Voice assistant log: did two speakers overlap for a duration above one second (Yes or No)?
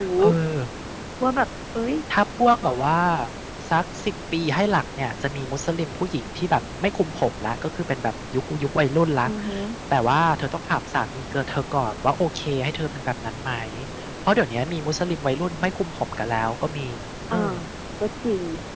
No